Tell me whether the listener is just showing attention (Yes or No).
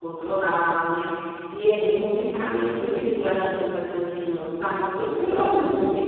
Yes